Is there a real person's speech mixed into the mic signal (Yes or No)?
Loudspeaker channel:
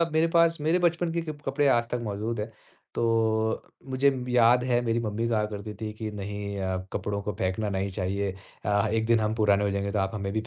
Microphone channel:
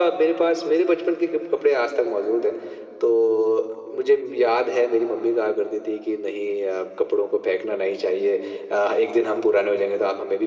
No